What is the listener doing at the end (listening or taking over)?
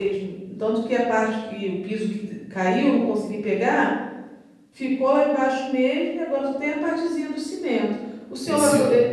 listening